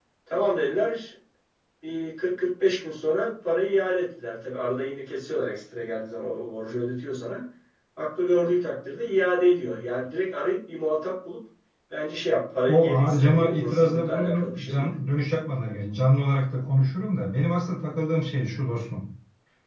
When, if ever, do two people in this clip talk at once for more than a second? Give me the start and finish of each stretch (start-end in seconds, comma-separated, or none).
12.7-14.9